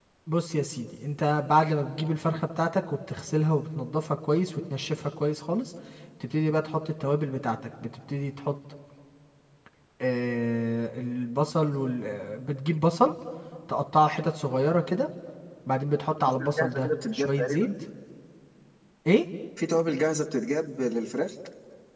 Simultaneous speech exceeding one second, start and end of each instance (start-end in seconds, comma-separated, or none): 16.4-17.7